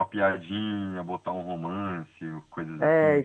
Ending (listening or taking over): taking over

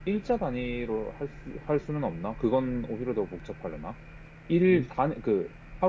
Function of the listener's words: listening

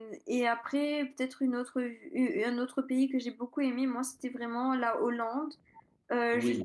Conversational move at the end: listening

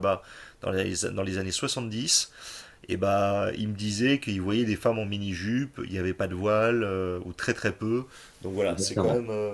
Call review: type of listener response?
taking over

